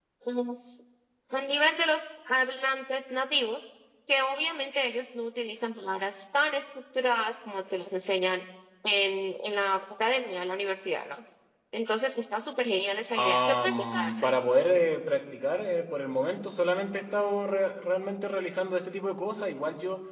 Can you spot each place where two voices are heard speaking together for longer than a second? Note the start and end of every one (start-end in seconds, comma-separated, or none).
13.2-14.4